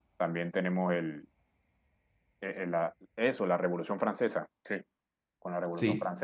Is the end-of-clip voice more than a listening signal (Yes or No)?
No